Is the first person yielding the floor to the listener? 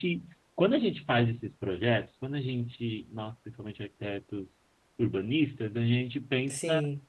No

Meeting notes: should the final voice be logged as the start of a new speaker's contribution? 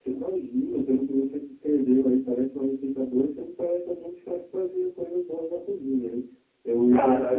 No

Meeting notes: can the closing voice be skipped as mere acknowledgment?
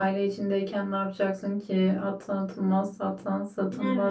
No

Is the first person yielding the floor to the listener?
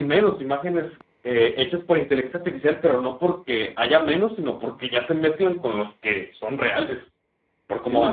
Yes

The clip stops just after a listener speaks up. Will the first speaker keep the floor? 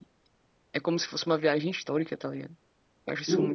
No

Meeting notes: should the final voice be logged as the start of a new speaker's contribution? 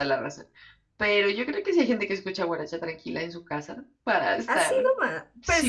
Yes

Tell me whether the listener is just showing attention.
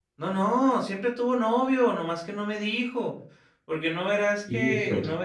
Yes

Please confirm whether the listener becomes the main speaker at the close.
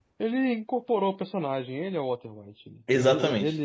No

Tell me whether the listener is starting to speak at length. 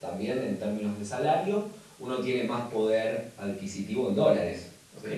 Yes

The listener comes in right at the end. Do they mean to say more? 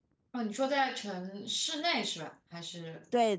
Yes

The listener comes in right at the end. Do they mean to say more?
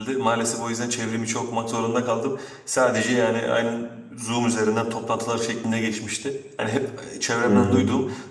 No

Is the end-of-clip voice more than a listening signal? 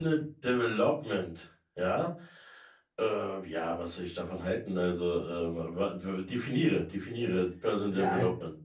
Yes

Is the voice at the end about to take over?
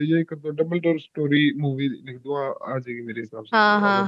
Yes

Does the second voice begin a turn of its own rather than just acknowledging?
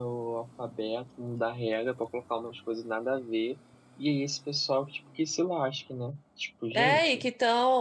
Yes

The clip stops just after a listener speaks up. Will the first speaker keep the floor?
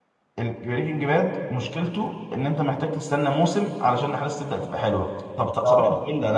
Yes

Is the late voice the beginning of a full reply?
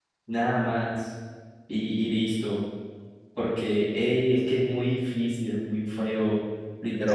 No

